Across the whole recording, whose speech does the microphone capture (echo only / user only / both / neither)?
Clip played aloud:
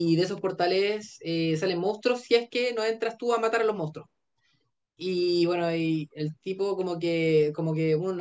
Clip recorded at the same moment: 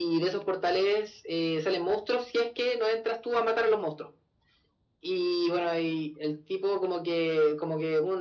echo only